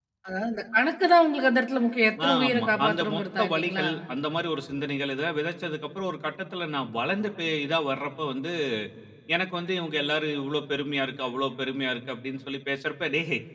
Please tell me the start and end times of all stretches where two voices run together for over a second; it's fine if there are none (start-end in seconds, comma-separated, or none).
2.3-3.9